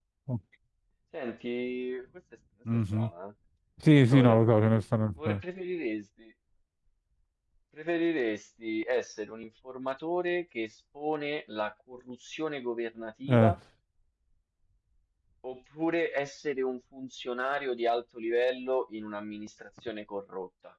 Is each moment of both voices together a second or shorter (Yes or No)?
Yes